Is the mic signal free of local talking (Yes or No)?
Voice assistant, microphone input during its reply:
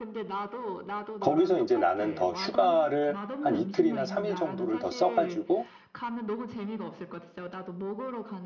No